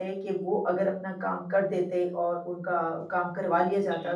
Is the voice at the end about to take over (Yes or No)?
No